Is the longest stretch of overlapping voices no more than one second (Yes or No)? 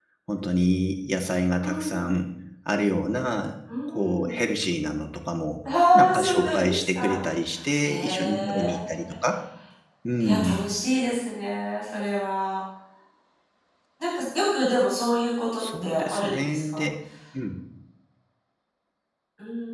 No